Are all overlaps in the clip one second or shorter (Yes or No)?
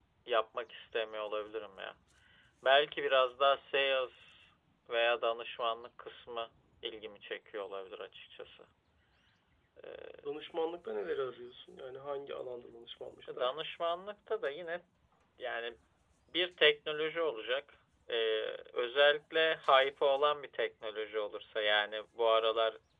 Yes